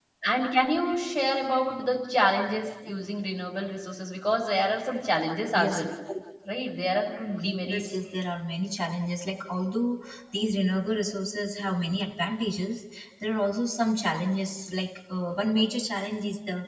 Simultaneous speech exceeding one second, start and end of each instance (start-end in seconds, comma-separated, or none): none